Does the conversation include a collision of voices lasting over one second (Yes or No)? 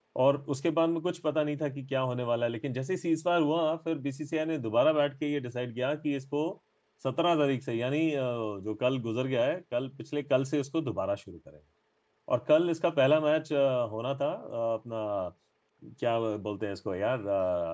No